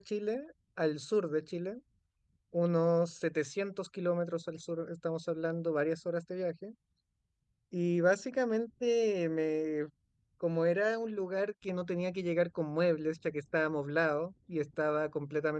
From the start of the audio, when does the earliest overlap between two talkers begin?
none

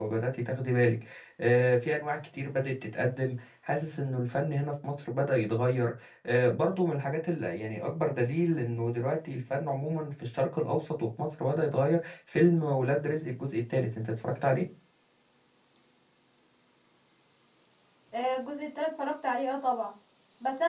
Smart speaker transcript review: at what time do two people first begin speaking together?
none

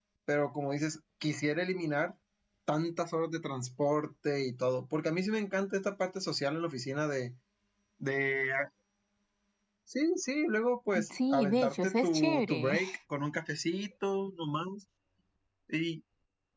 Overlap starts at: 10.9 s

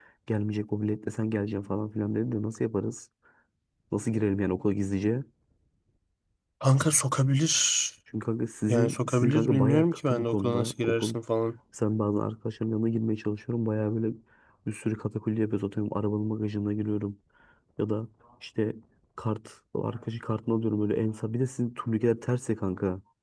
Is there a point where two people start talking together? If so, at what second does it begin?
8.7 s

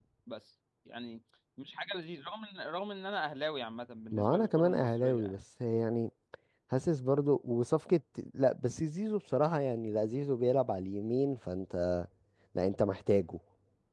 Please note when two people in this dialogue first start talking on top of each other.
4.1 s

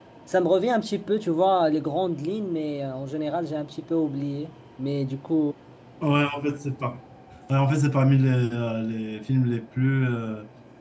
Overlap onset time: none

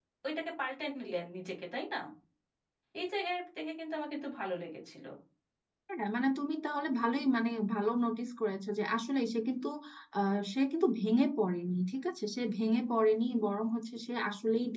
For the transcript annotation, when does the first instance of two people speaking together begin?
none

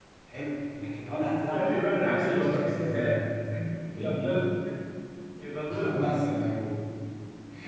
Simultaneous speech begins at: 1.5 s

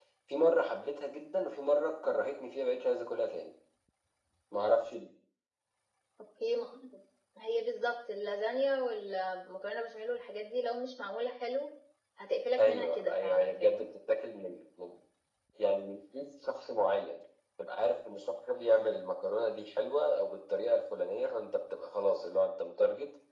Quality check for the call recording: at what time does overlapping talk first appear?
12.6 s

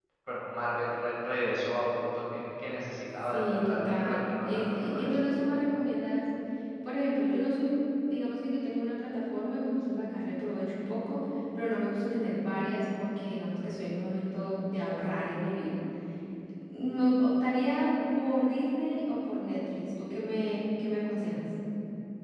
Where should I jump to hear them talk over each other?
3.2 s

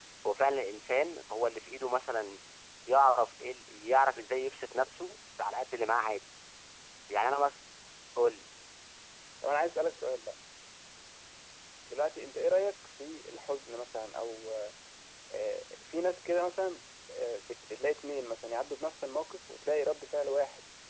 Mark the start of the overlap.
none

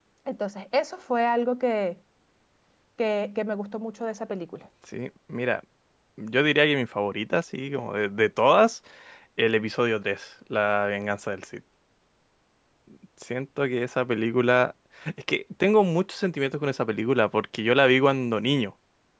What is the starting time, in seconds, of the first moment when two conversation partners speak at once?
none

